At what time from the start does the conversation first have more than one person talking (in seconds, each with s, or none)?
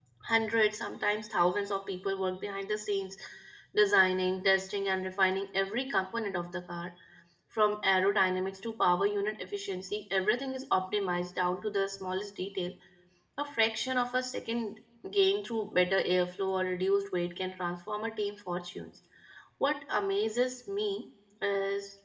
none